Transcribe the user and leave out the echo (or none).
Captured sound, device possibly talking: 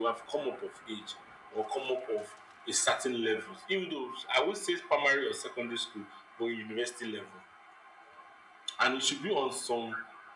none